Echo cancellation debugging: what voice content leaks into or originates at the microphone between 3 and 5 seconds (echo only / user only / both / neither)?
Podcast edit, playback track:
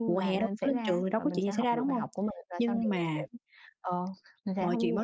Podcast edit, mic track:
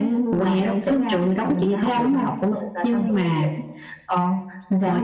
echo only